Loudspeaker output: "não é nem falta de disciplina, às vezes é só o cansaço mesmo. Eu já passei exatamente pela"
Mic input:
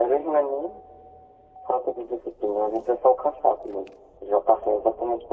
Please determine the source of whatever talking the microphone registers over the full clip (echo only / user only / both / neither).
echo only